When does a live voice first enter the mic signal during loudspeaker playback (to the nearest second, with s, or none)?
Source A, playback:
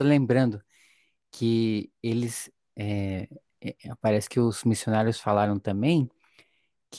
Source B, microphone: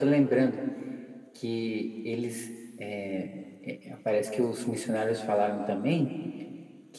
none